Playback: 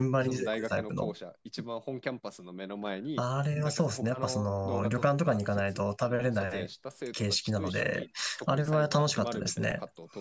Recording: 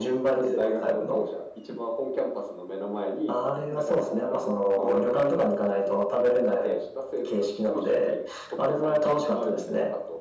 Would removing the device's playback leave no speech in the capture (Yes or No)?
Yes